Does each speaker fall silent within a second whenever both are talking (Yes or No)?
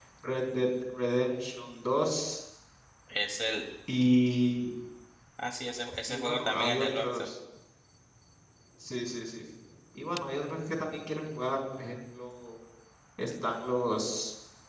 No